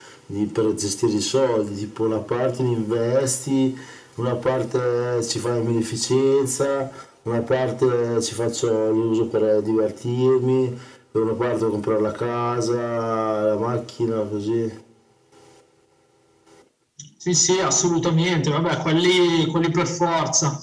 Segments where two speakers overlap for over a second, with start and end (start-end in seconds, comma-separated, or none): none